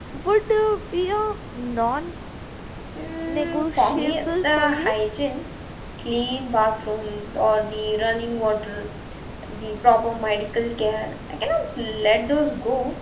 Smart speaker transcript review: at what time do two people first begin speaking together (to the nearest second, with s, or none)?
3 s